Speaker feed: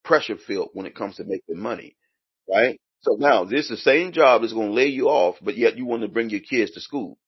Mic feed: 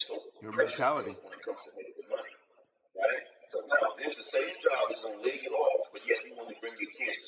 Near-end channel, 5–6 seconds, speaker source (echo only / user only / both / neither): echo only